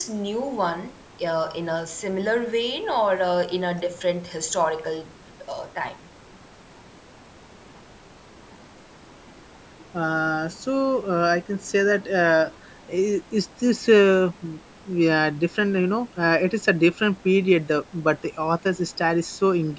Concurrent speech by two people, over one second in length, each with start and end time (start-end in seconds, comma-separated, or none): none